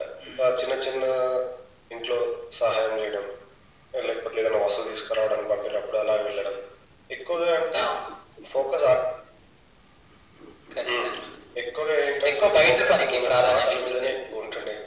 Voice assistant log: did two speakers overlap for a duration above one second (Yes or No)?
Yes